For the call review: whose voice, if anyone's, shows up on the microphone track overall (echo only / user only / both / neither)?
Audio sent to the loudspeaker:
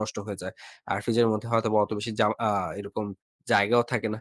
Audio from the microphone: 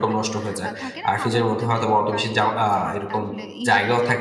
both